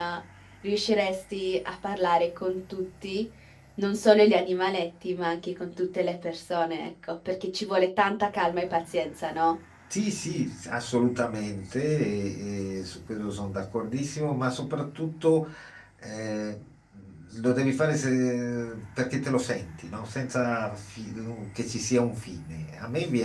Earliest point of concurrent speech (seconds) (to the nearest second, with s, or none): none